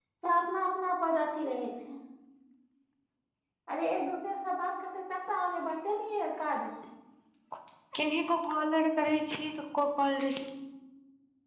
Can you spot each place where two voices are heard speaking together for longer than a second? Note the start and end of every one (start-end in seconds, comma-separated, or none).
none